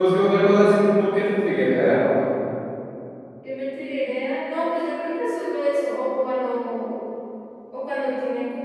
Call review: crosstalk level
none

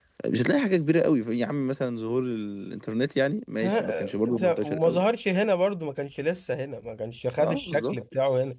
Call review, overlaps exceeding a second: present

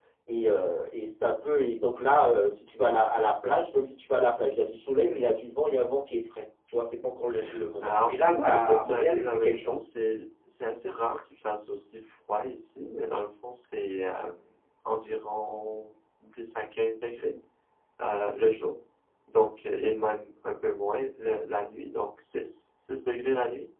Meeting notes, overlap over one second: present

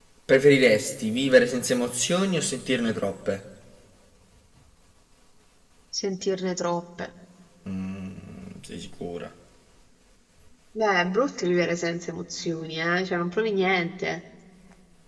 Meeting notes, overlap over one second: none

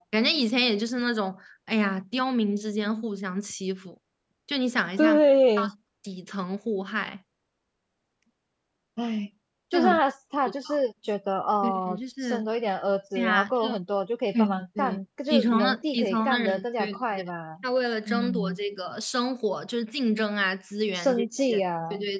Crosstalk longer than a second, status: present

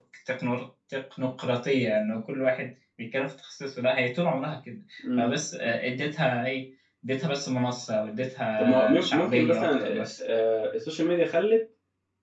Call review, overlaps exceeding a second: present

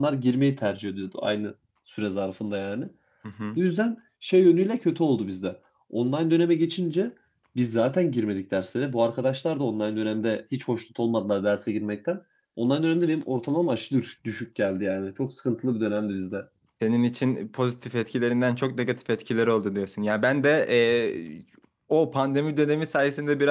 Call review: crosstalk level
none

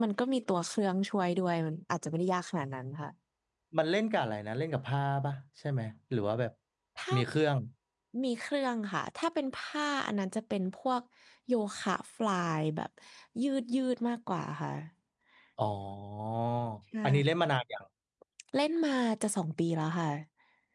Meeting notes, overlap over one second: none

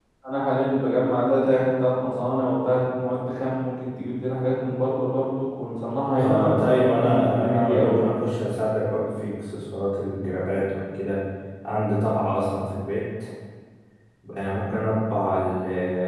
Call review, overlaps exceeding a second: present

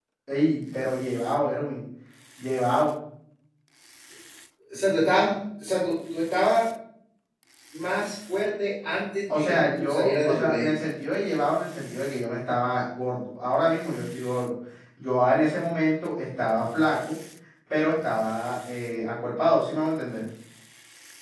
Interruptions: present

